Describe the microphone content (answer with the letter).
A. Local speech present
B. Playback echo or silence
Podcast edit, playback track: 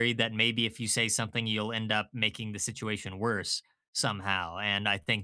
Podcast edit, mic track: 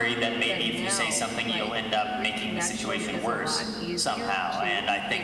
A